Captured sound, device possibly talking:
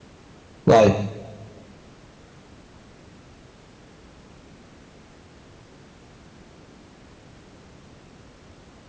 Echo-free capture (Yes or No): Yes